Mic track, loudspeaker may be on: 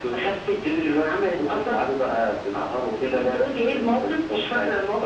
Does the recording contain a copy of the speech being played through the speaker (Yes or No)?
Yes